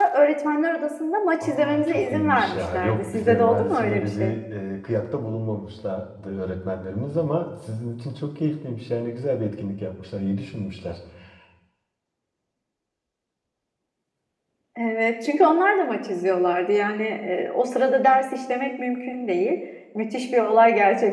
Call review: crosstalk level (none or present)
present